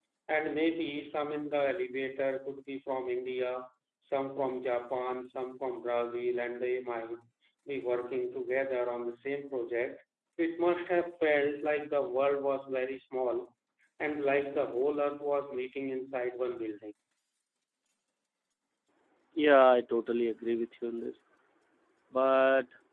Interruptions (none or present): none